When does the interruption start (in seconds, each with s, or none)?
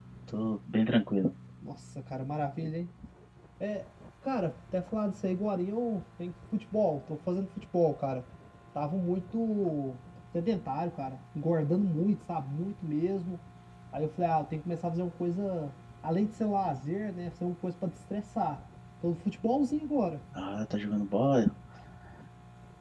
none